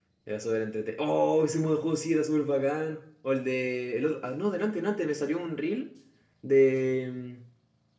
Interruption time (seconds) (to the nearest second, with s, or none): none